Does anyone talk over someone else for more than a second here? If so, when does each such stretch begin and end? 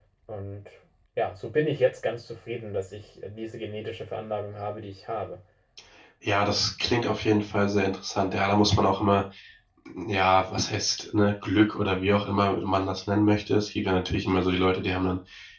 none

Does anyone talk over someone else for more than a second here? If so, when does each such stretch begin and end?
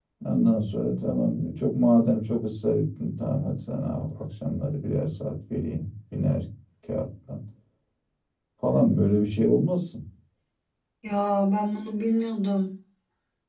none

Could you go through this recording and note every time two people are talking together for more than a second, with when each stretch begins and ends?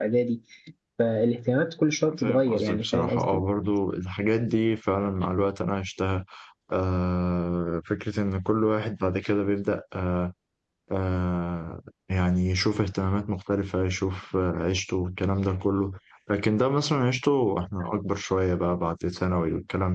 2.1-3.4

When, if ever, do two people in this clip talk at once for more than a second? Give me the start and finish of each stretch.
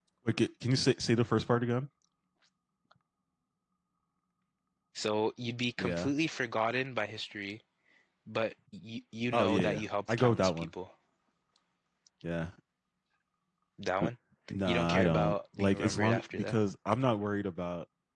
9.3-10.7, 14.7-16.6

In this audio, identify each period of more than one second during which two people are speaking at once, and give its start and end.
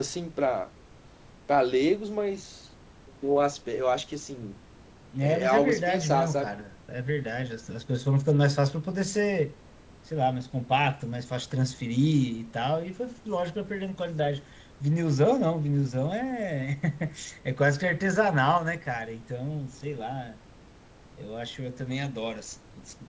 5.2-6.5

